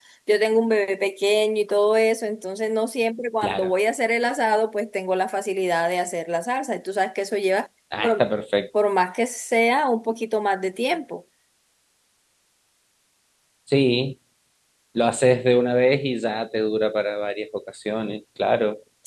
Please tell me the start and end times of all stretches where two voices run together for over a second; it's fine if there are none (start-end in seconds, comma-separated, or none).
none